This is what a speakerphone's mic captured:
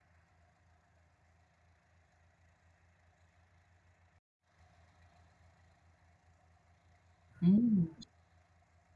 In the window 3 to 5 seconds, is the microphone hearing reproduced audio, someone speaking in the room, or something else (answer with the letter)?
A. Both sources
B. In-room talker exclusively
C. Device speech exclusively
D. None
D